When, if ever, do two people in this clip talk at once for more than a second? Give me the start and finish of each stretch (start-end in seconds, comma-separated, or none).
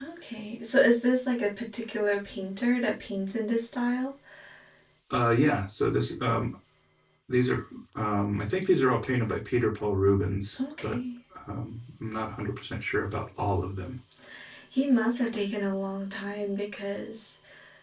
none